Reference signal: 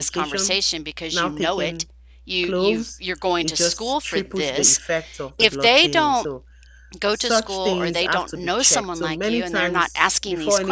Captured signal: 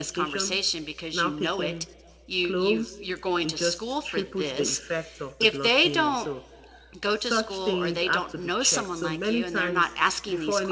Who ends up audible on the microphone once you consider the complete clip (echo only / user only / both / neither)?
echo only